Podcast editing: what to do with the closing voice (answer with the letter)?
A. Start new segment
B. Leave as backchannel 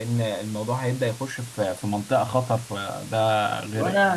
A